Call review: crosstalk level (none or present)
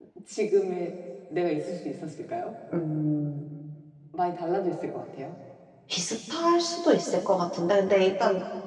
none